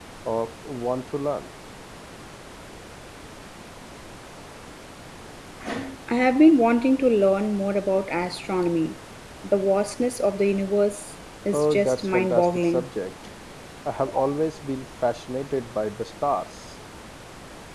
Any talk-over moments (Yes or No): Yes